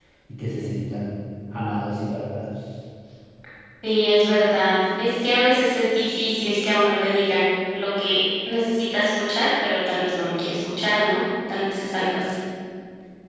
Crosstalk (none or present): none